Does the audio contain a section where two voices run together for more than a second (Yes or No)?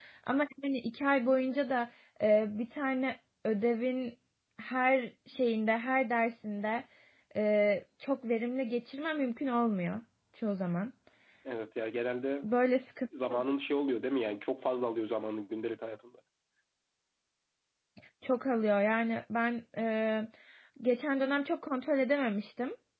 No